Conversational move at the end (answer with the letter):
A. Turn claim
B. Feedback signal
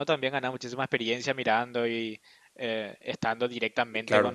A